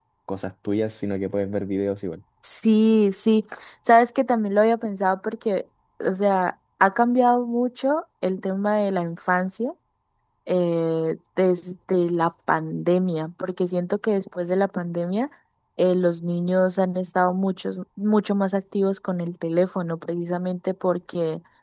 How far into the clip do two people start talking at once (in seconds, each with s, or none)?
none